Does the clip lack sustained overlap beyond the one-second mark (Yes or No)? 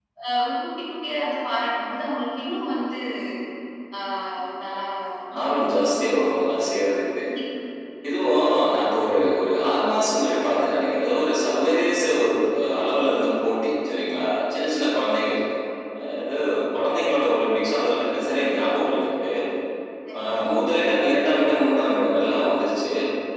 Yes